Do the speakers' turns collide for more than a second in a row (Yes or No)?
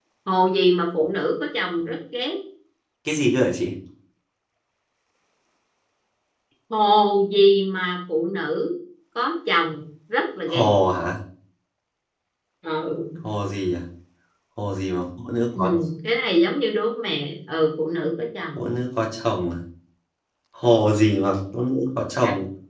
No